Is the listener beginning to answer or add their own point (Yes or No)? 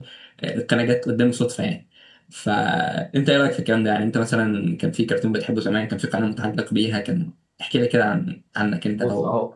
Yes